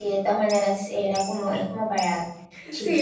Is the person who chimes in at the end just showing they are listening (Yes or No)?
No